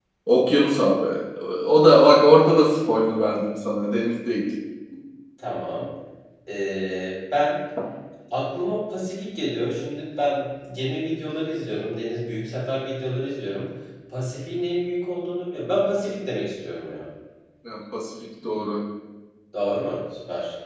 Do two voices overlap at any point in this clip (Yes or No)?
No